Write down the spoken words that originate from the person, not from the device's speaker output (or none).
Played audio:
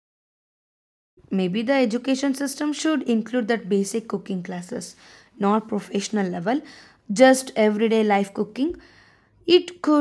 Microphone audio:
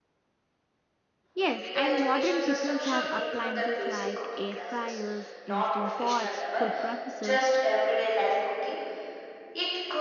Yes, and modern kitchens have appliances like air fryers, instant pots, food processor.